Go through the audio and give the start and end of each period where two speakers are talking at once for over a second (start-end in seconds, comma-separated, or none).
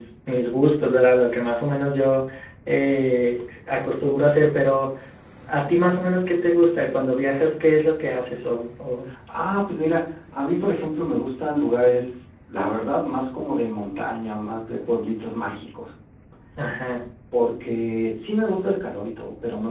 none